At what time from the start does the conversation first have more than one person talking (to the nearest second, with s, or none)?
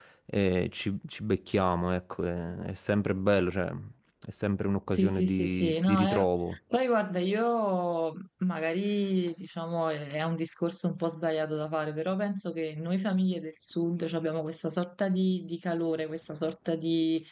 5 s